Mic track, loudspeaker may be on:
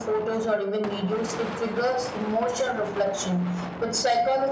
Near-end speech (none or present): none